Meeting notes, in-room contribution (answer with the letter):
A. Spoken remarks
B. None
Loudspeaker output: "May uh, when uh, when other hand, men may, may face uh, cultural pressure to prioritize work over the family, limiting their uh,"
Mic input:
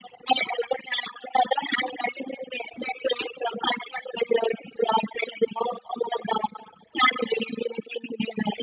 B